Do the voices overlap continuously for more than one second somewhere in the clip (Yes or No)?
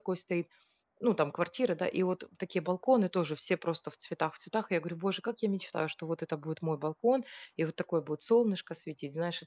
No